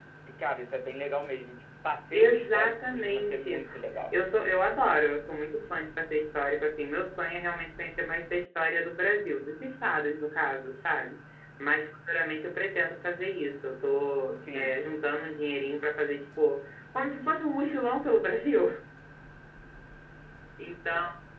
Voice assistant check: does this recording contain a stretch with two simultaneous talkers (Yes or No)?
Yes